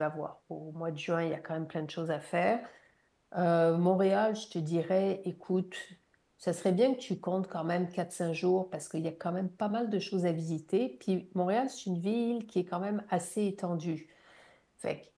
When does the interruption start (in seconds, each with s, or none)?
none